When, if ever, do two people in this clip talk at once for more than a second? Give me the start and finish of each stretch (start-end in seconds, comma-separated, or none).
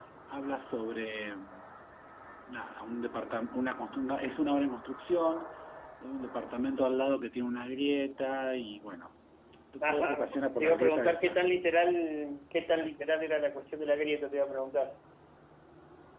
9.8-11.4